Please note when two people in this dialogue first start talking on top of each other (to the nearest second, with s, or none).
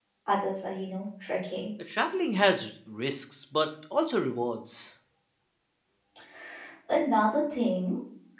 none